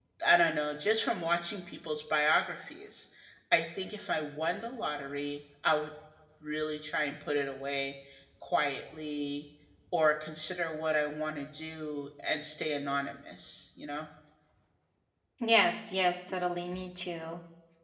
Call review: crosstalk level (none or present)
none